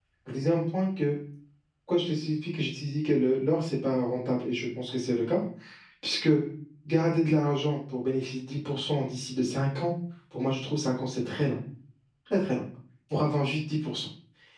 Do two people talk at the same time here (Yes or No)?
No